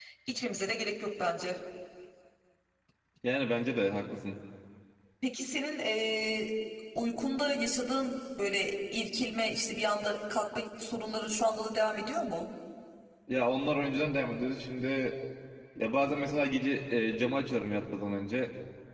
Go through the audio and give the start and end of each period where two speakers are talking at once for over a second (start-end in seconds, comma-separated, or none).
none